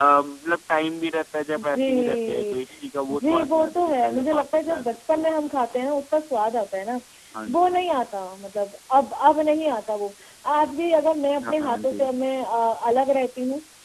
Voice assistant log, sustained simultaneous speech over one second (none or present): present